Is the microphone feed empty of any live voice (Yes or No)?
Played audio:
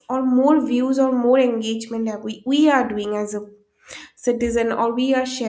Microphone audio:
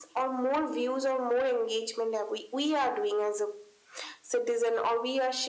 Yes